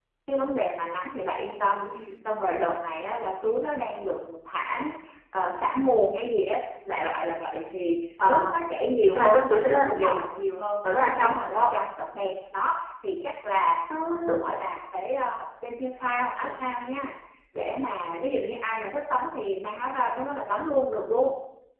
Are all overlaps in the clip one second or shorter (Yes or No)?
Yes